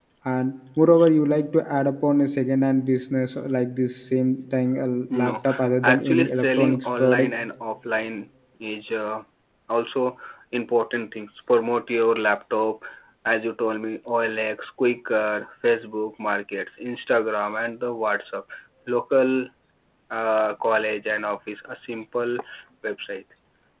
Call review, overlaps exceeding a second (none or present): present